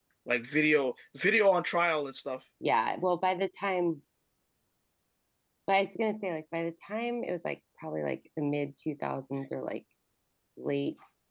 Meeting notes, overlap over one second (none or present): none